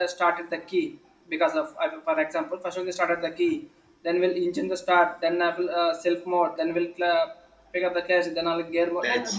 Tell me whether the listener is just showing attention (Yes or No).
Yes